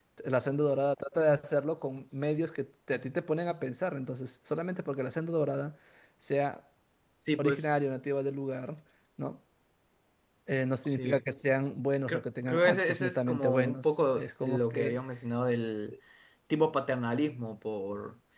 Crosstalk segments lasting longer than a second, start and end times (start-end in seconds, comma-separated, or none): 12.1-15.0